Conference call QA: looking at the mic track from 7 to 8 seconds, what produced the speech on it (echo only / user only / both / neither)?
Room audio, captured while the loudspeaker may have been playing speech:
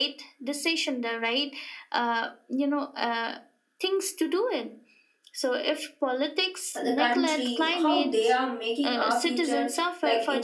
both